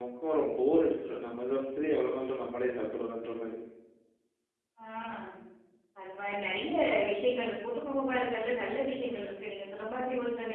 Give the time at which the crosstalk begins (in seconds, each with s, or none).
none